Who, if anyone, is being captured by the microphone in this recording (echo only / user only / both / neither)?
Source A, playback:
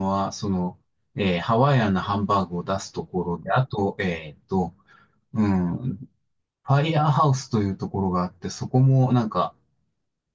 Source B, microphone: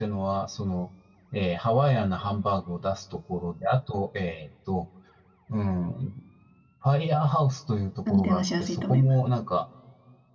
both